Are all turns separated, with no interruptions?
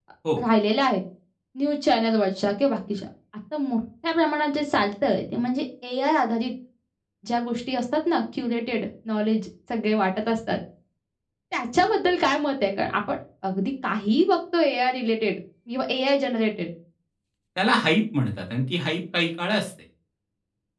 Yes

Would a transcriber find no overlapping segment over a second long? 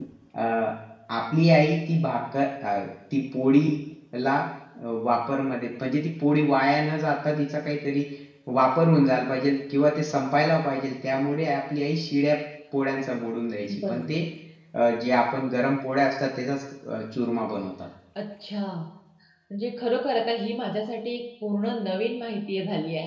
Yes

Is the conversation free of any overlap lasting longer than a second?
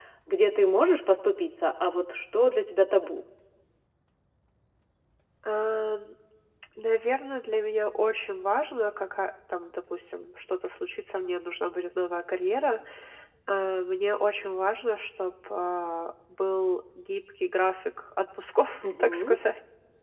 Yes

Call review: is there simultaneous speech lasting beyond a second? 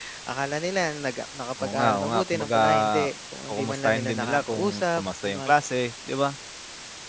Yes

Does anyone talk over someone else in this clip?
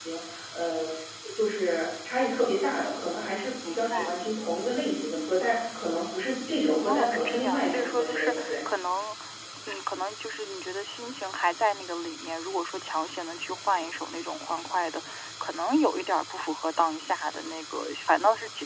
Yes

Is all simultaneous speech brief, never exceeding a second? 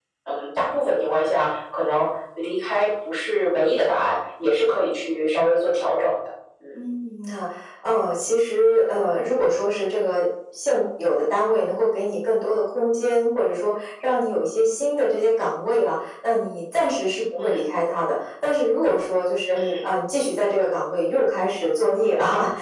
Yes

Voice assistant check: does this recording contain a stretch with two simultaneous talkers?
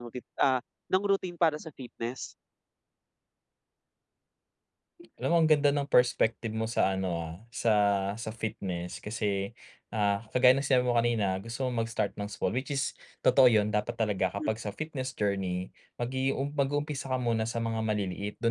No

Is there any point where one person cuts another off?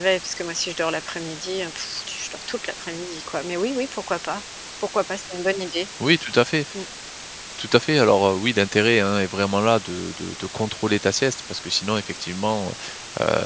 No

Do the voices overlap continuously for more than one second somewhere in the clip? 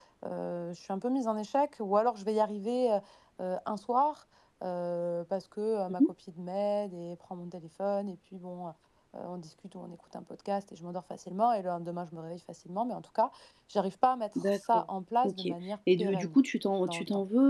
No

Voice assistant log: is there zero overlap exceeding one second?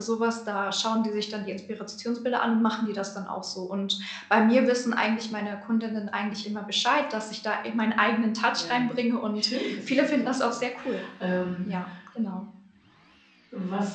No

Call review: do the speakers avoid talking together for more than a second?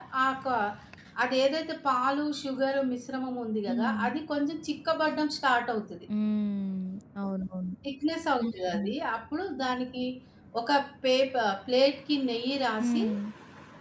Yes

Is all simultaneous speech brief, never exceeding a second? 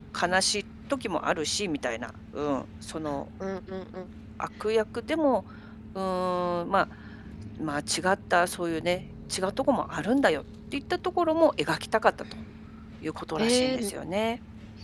Yes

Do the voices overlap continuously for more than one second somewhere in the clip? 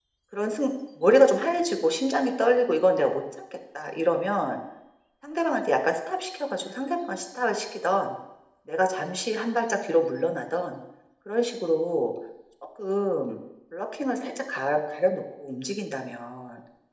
No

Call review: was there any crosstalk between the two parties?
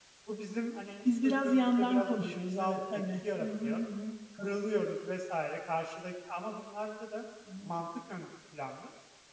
Yes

